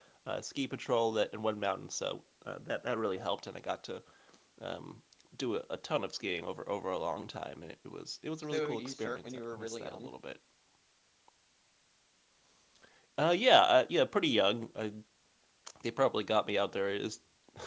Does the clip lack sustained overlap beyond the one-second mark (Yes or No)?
No